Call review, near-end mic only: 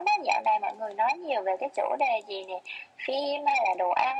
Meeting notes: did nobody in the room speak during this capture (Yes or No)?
Yes